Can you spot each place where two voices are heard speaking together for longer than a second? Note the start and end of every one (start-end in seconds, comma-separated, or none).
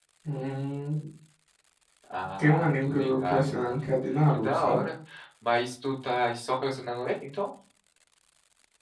2.4-3.8